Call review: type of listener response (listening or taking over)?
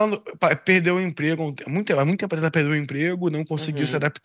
listening